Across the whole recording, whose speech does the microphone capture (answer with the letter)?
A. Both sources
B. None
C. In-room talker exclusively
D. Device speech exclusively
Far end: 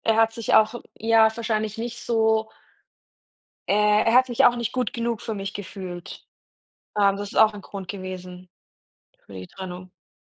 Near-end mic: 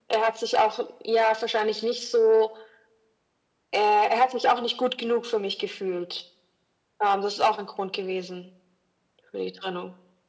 D